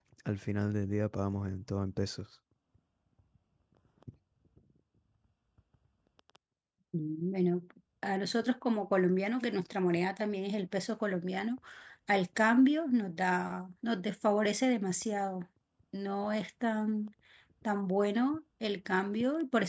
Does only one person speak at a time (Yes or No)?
Yes